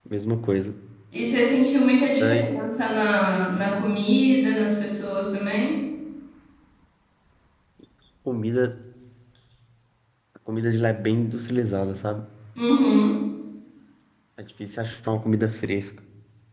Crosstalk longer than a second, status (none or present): none